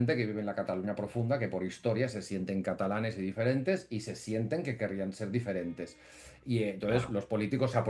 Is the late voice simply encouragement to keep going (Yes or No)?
Yes